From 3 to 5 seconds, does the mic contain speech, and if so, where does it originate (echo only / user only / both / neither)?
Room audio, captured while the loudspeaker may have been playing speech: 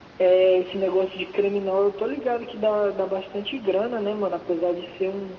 echo only